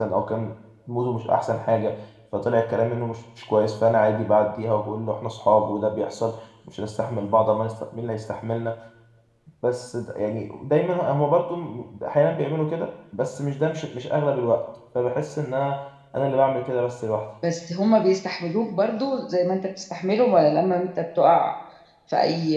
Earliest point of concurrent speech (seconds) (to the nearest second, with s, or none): none